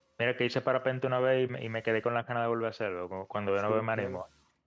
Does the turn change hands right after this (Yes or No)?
Yes